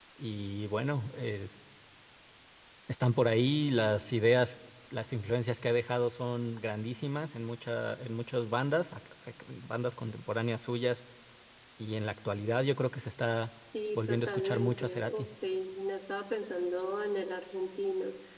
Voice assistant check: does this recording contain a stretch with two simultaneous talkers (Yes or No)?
Yes